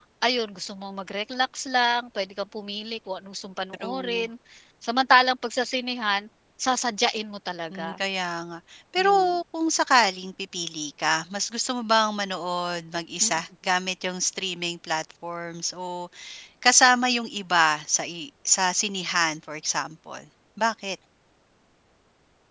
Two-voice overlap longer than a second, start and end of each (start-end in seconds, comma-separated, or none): none